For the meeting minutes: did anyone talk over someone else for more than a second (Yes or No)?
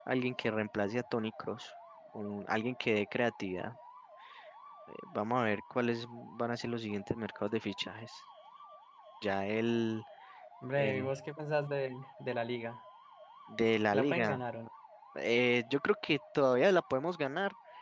No